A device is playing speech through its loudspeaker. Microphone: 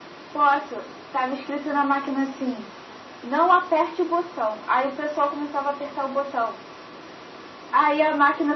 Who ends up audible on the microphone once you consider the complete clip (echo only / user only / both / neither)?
echo only